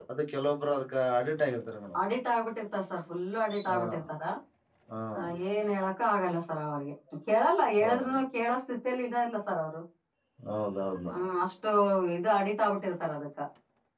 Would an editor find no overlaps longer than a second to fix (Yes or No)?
Yes